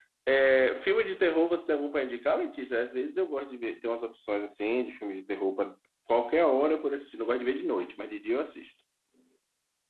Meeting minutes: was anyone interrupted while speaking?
No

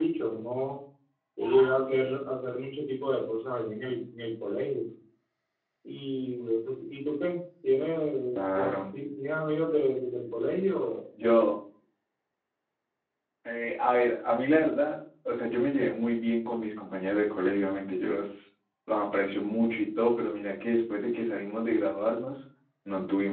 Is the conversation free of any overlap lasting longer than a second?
Yes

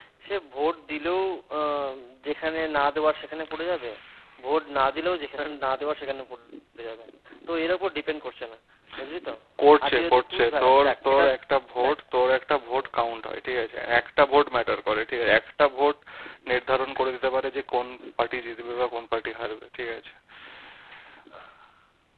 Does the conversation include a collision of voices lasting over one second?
Yes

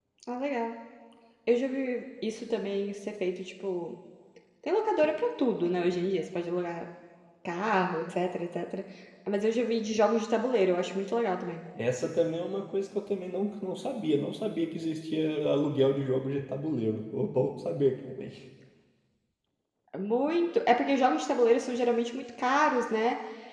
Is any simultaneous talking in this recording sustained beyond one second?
No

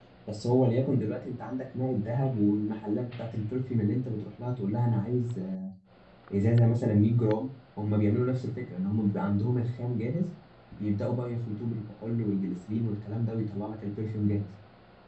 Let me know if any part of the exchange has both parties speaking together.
No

